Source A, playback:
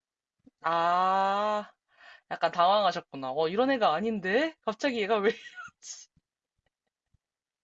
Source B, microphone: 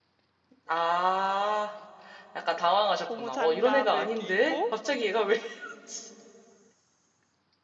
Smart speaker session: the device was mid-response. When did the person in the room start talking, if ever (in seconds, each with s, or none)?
3.0 s